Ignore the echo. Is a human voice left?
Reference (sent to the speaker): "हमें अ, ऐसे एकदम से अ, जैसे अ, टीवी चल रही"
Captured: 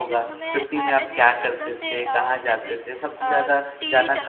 Yes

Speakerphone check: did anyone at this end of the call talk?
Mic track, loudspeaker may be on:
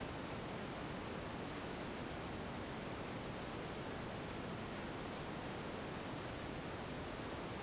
No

